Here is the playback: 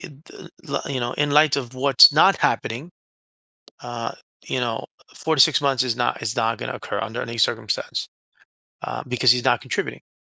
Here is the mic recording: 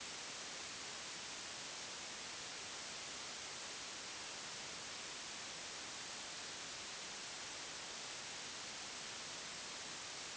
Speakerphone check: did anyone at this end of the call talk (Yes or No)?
No